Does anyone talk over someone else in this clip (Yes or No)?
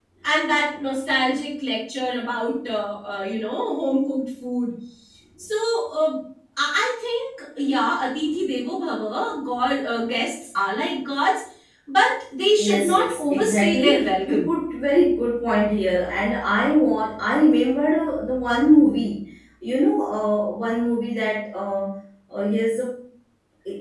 Yes